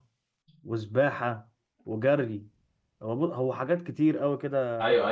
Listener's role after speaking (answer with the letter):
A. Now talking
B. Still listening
A